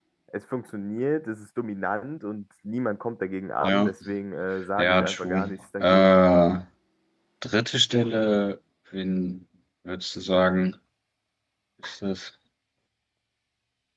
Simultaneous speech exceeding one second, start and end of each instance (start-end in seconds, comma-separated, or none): 4.8-6.1